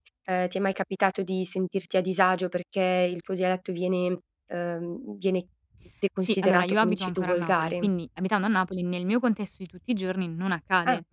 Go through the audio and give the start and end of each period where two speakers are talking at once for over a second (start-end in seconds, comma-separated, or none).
6.2-7.9